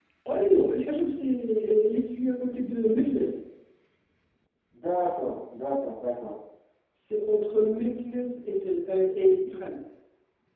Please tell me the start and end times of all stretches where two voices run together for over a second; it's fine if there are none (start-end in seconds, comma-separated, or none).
none